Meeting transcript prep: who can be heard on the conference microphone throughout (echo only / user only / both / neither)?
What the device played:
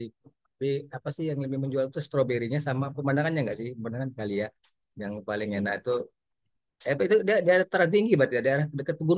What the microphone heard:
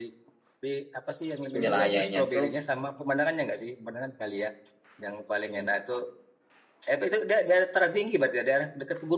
both